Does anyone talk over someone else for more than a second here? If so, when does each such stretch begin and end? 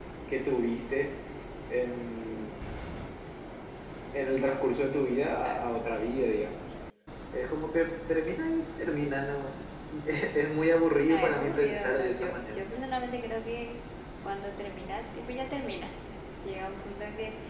11.0-12.6

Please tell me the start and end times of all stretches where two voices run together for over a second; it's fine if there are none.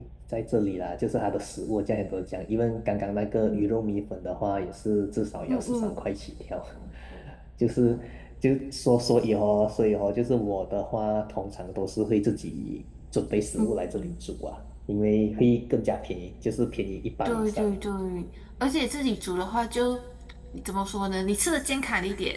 none

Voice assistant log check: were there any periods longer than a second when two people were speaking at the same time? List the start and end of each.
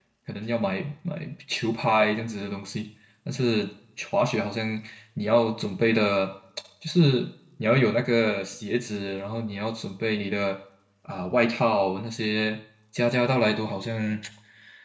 none

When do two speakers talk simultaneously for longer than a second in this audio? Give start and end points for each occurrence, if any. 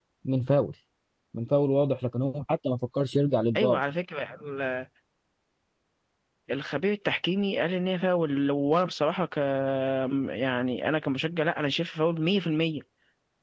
none

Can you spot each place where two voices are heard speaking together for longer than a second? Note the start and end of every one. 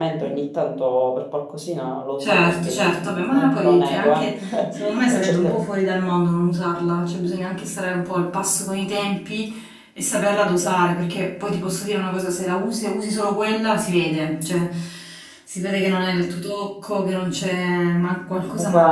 2.2-5.6

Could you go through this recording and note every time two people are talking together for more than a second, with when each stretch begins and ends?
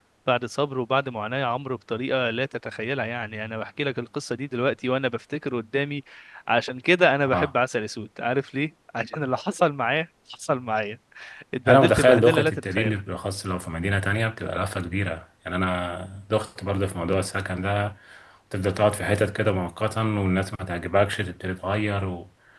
11.7-13.0

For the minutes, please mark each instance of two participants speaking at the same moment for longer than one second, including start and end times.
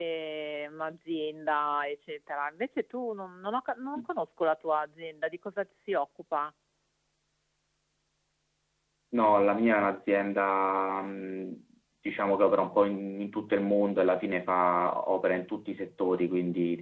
none

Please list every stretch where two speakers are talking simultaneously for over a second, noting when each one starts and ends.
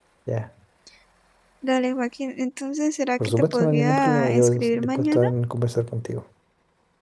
3.2-5.3

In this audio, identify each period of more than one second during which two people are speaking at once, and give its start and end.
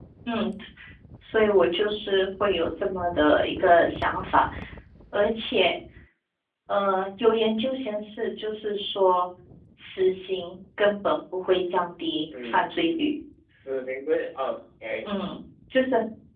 none

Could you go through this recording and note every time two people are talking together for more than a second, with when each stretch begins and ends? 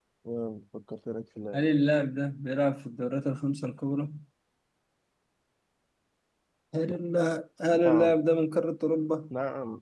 none

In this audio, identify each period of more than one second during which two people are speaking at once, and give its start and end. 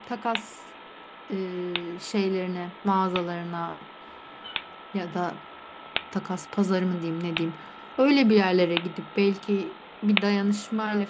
none

